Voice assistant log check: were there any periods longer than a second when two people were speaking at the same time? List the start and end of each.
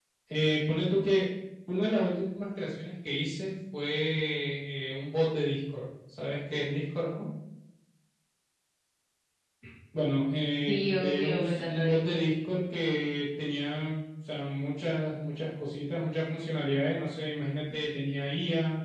10.7-12.2

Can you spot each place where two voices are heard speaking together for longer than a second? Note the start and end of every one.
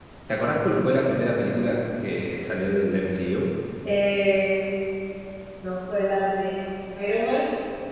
none

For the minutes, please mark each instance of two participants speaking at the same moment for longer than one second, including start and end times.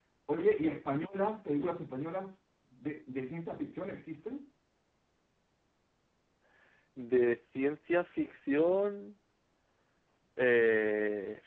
none

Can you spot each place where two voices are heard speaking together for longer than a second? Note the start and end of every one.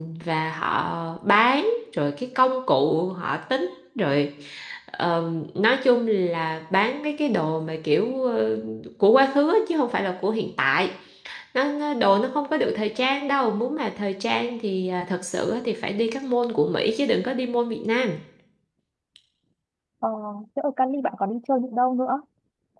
none

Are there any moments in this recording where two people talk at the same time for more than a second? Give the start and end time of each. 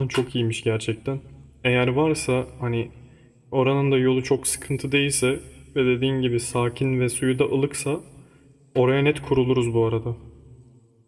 none

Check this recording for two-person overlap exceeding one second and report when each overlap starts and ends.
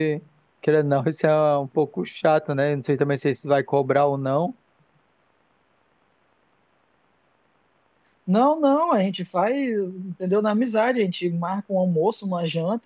none

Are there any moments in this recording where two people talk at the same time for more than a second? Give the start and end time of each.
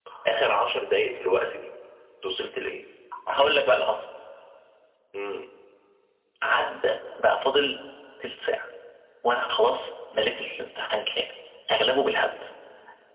none

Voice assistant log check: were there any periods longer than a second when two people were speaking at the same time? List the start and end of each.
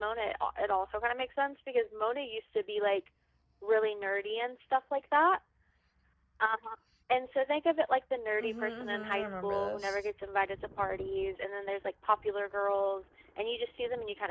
8.4-10.0

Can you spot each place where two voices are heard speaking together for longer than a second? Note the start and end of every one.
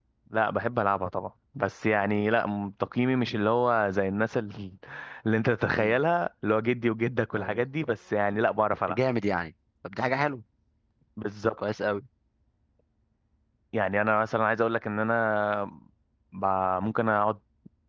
none

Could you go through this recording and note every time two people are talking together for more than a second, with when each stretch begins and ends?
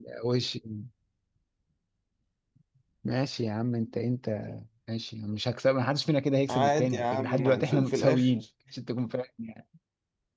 6.5-8.3

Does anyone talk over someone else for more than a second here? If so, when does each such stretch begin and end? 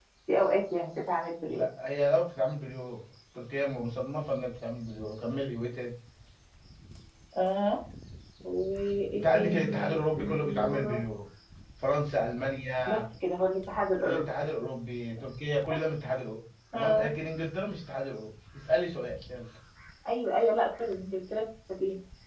9.1-11.0

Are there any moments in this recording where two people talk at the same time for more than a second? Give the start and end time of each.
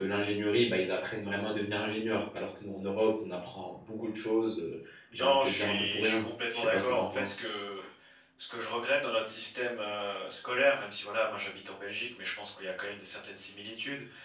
5.2-7.3

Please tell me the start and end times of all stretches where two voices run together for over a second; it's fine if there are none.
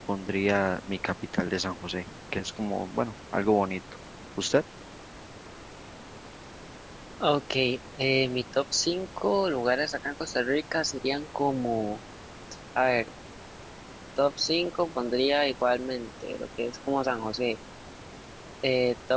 none

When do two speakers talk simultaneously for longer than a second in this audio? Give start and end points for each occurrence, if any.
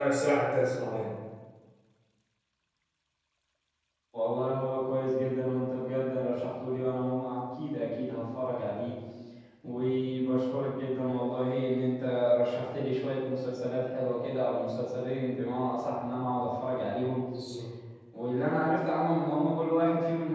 none

